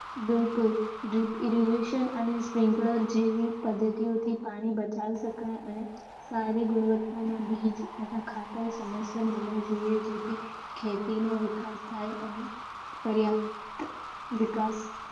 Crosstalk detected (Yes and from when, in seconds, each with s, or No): No